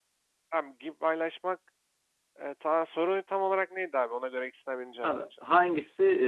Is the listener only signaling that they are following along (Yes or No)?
No